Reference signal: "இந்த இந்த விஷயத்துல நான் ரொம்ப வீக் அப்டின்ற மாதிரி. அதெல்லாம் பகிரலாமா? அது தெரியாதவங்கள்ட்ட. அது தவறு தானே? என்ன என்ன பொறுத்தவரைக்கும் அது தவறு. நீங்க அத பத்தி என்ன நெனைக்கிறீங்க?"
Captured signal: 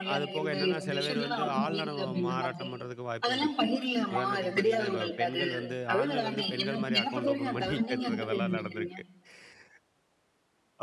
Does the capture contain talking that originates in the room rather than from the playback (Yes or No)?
Yes